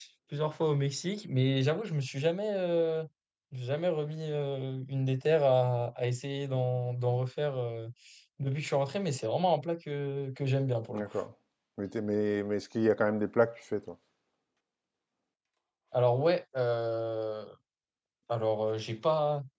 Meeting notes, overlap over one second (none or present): none